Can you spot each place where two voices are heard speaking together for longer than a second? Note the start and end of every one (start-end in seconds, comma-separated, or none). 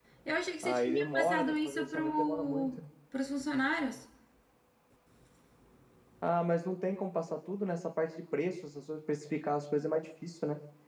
0.6-2.8